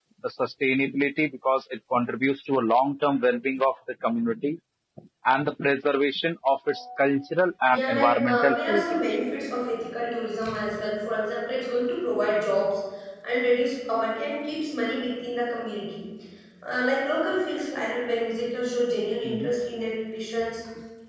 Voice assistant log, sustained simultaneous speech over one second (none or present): present